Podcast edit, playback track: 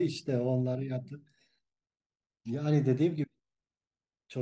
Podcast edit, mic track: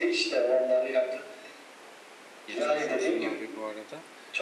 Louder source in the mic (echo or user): echo